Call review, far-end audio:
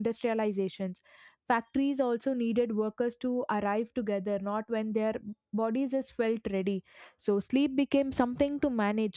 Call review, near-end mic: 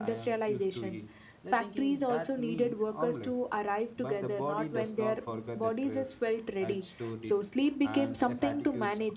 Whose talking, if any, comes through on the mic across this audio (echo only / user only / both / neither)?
both